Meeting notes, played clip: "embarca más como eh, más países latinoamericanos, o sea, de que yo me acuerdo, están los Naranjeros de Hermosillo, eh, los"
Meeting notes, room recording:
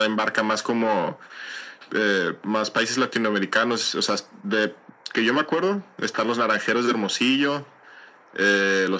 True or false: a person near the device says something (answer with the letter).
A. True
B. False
B